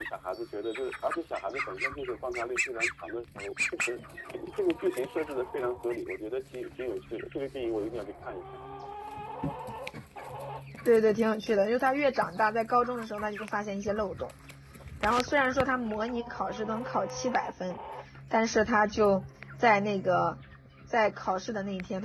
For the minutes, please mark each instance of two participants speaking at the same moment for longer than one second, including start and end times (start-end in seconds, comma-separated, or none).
none